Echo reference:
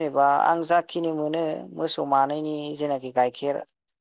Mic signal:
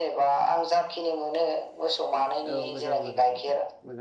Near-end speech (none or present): present